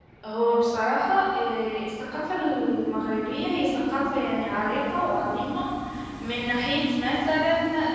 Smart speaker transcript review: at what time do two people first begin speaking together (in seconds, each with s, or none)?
none